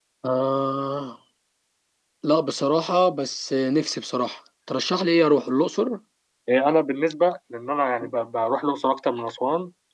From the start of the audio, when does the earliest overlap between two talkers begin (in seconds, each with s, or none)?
none